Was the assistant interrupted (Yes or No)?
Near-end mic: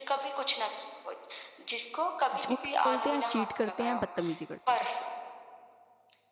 Yes